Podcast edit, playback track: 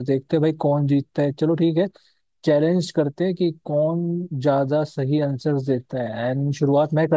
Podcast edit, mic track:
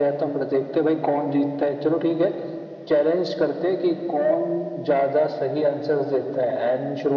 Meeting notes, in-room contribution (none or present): none